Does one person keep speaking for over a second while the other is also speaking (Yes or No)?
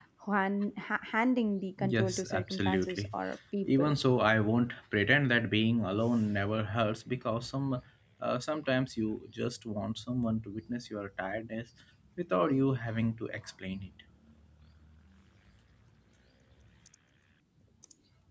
Yes